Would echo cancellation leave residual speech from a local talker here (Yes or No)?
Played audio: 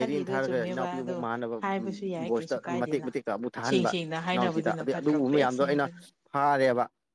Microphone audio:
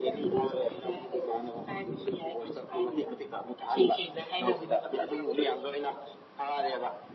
No